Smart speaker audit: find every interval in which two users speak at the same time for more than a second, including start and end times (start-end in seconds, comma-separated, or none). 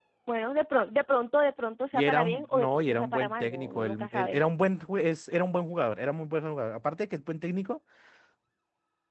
1.9-4.4